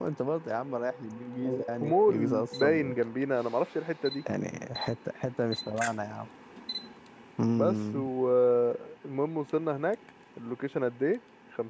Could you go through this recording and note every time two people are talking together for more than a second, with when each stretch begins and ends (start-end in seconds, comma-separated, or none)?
1.4-2.9